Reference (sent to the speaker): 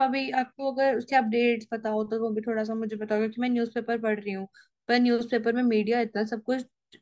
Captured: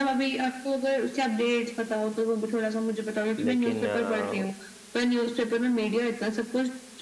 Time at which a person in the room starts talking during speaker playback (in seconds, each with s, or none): 3.4 s